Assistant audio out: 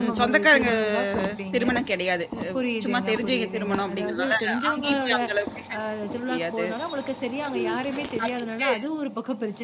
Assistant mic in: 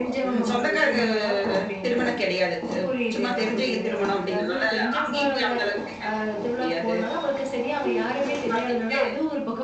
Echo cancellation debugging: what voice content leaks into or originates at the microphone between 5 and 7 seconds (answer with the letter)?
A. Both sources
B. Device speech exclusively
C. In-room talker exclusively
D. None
B